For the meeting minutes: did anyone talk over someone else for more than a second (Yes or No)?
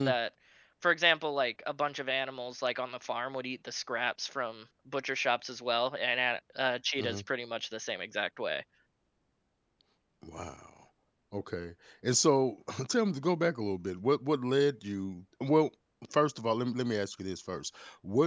No